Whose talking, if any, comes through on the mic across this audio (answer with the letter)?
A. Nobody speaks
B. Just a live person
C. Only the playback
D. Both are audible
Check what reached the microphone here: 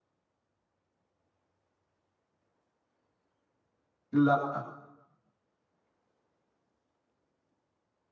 B